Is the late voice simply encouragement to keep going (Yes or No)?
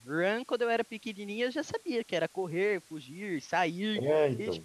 Yes